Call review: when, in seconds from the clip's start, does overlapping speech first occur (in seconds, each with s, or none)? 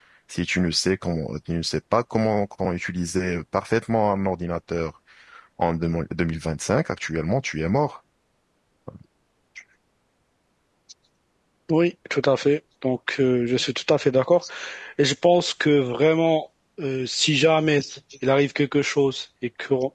none